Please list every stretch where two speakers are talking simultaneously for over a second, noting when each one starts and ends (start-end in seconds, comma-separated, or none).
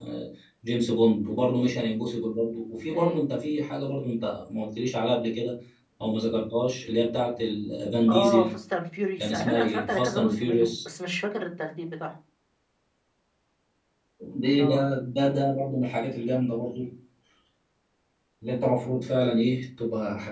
9.2-10.7